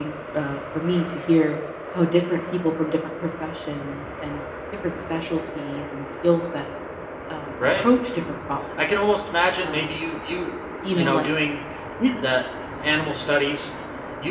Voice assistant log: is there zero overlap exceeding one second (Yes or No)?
Yes